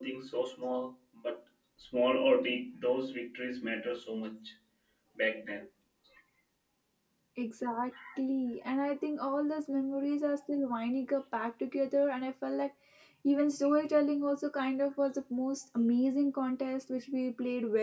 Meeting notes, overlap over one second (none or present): none